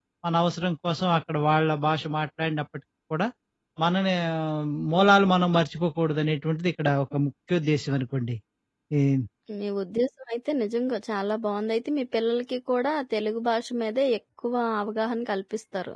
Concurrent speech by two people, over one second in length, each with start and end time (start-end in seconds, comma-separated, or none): none